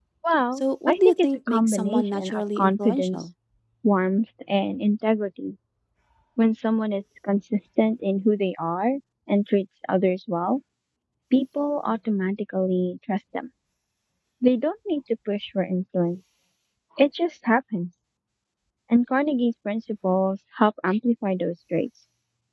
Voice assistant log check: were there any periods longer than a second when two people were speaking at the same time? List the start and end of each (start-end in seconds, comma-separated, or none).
0.6-3.2